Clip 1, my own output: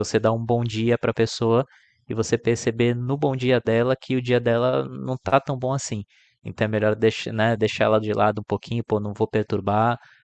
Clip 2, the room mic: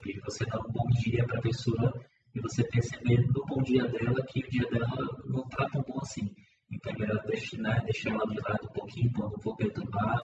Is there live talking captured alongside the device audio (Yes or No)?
No